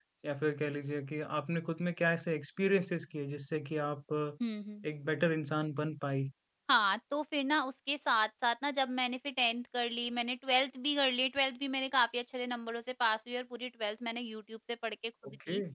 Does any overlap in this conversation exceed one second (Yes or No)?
No